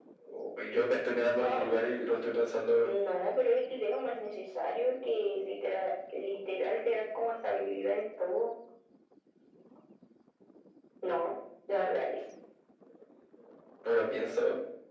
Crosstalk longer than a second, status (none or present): none